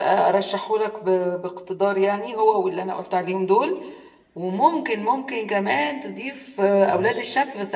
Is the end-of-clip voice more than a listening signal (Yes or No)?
No